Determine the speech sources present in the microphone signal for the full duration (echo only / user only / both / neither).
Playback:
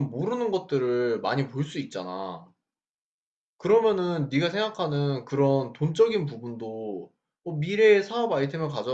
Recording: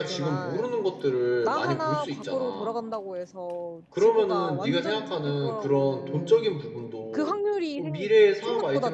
both